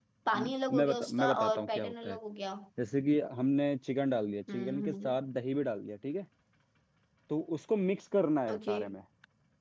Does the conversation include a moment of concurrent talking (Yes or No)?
Yes